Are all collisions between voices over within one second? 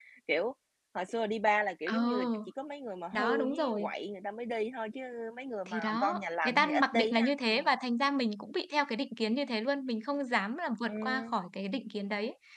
No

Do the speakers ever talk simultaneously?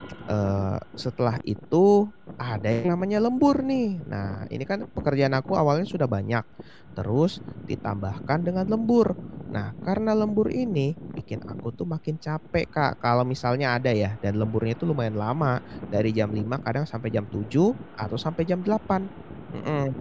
No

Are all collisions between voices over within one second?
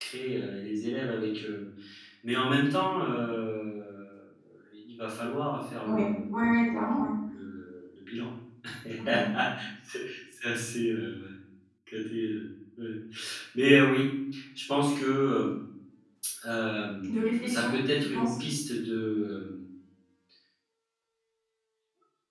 No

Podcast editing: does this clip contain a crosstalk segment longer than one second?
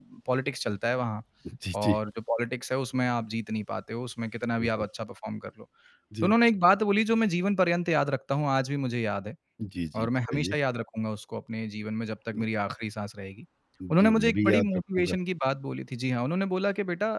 Yes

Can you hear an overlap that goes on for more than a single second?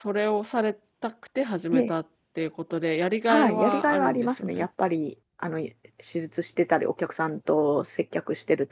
Yes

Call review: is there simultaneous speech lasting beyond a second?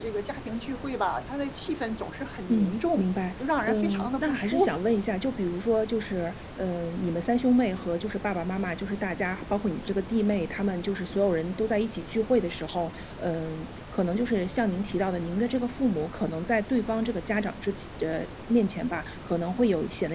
Yes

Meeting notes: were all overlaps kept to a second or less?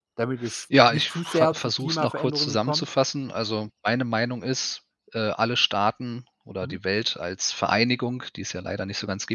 No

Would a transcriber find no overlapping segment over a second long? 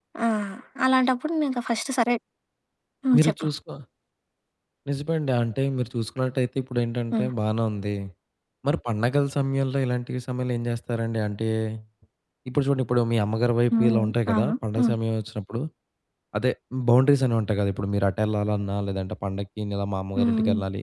No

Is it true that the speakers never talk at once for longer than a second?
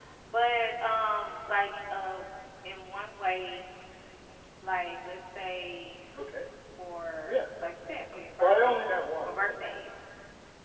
Yes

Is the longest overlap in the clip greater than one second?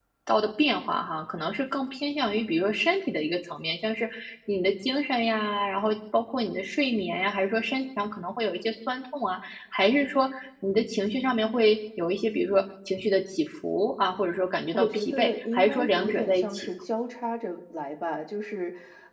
Yes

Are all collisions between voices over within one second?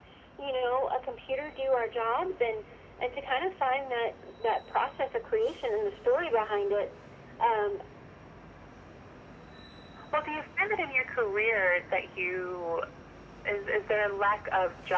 Yes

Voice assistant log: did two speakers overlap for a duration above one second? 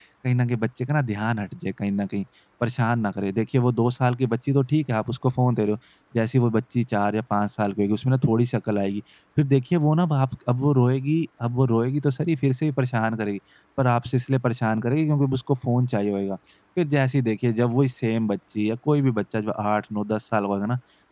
No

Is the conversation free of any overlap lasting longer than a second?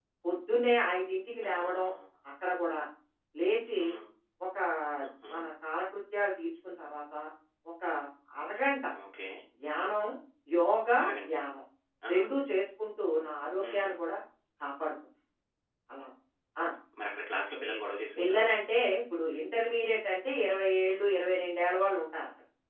Yes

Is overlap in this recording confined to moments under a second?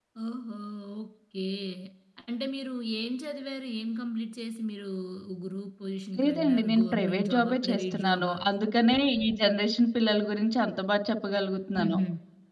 No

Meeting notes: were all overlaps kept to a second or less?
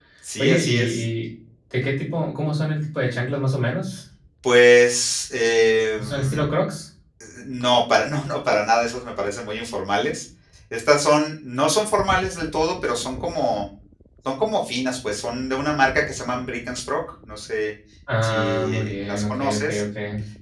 No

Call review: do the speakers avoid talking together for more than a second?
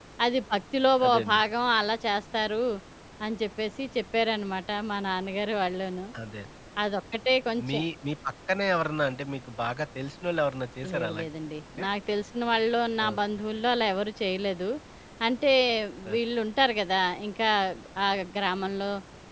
Yes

